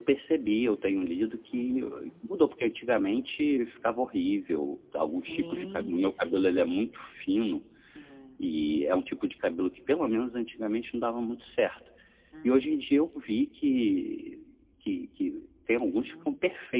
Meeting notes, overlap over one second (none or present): present